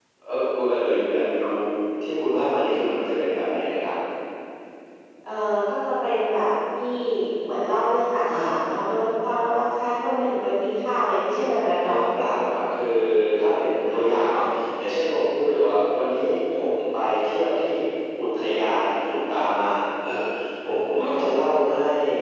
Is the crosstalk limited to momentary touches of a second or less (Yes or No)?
Yes